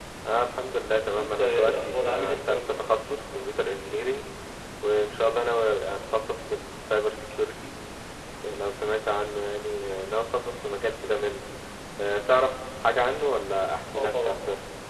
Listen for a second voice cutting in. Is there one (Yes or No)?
Yes